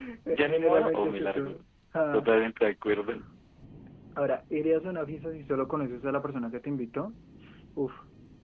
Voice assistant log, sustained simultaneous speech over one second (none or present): present